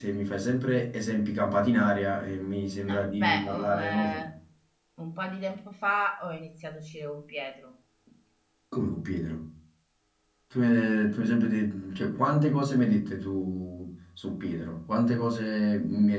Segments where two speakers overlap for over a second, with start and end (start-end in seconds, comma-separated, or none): 2.9-4.2